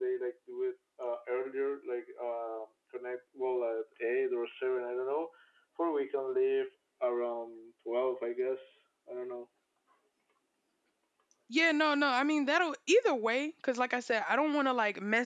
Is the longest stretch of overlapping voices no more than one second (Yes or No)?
Yes